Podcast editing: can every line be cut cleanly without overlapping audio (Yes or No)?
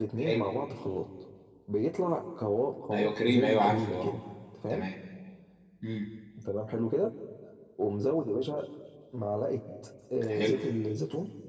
No